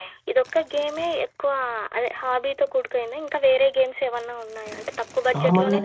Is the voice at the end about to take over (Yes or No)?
No